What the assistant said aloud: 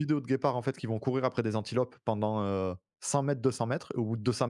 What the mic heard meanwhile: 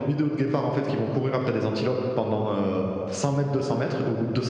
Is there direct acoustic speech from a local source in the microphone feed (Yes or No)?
No